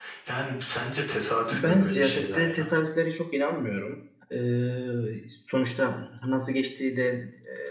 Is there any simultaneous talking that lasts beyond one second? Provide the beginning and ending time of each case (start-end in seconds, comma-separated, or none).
1.5-2.7